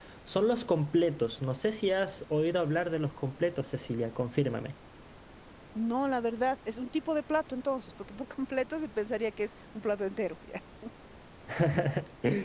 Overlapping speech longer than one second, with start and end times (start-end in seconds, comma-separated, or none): none